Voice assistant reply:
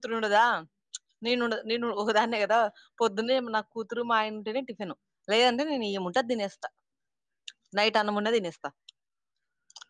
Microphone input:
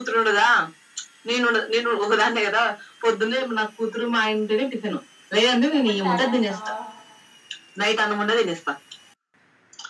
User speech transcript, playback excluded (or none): ఎప్పుడు స్టార్ట్ చెత్తవు